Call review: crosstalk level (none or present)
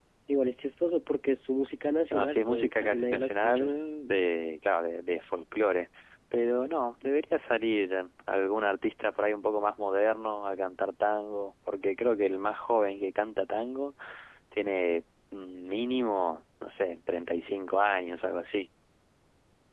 present